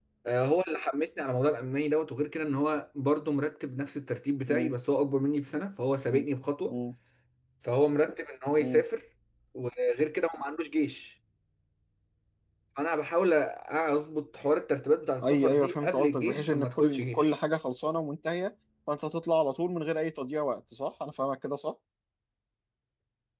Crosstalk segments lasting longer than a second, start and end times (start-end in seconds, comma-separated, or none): 15.2-17.3